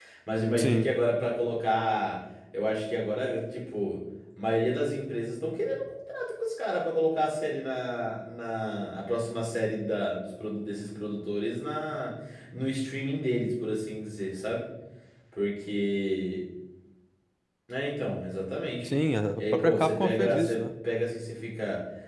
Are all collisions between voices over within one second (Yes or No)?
No